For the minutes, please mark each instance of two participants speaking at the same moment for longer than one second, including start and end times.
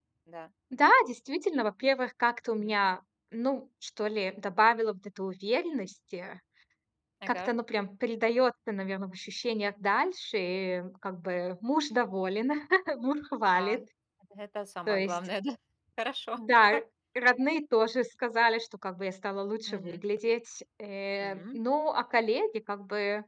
none

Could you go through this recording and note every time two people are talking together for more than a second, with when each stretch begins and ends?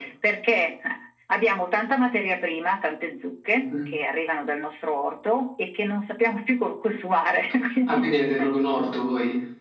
none

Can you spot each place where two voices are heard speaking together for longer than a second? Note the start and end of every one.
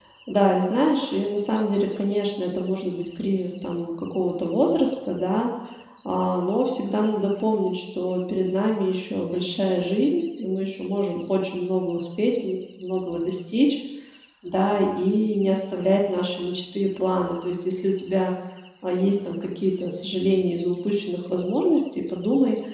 none

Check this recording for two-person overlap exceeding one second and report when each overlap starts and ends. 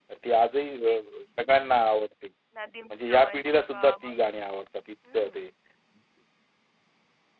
2.9-4.2

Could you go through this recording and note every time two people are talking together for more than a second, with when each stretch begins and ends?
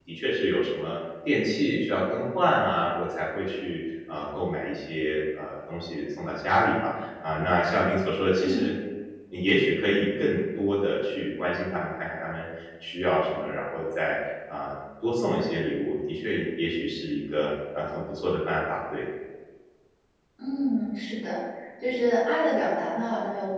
none

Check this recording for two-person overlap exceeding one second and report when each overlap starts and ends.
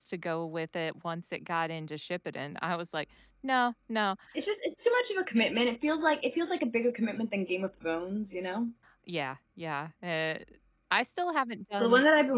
none

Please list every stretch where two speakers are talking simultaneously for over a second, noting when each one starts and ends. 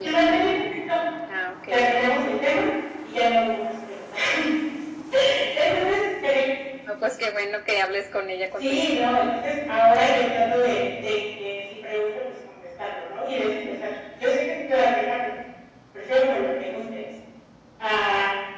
none

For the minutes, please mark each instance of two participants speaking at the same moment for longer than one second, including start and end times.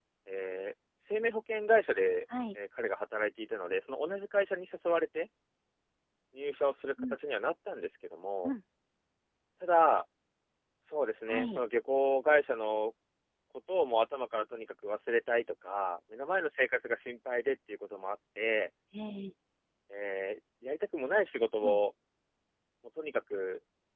none

